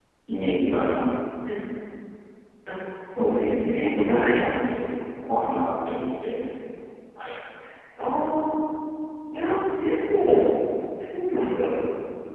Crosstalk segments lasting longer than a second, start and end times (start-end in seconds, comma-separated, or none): 3.2-4.4